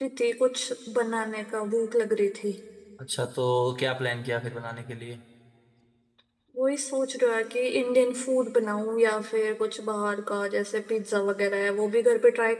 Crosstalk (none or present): none